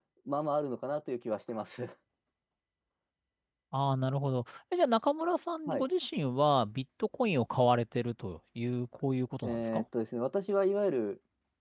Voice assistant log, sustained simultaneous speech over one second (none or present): none